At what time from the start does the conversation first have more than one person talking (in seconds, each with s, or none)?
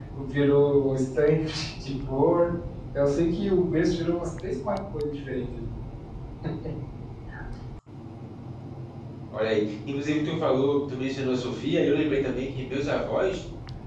none